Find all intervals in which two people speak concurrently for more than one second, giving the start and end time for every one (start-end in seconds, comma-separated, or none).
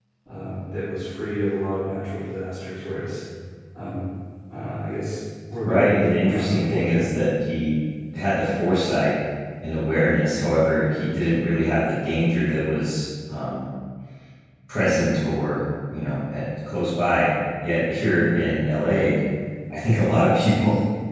5.6-7.1